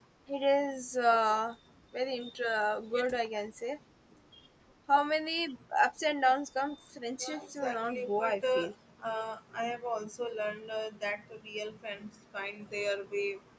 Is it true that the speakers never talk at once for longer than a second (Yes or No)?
No